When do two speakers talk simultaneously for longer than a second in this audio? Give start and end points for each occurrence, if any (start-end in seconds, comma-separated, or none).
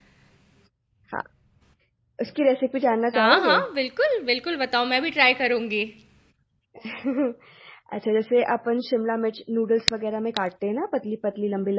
none